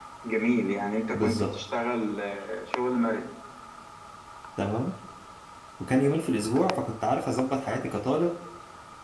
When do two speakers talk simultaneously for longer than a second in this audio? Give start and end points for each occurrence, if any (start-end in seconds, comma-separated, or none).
none